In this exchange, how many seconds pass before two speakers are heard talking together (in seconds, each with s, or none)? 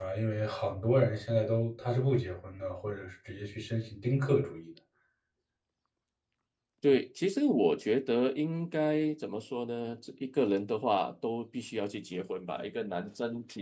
none